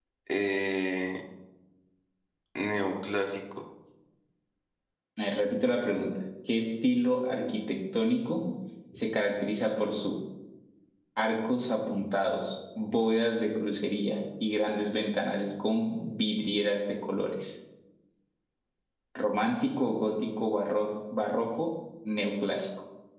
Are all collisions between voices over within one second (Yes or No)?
Yes